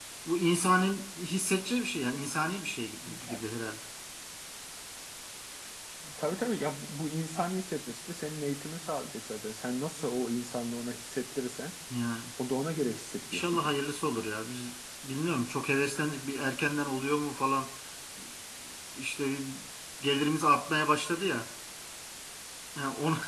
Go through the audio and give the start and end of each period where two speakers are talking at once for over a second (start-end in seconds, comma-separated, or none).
none